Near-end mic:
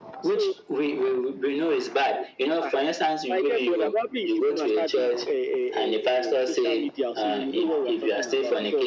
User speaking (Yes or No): No